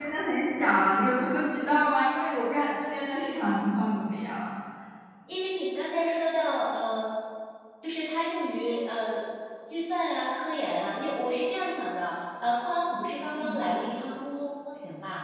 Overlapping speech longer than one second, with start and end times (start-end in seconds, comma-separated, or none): none